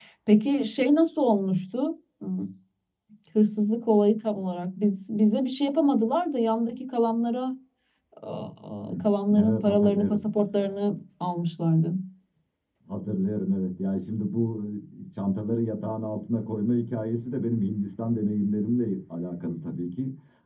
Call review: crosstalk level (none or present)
present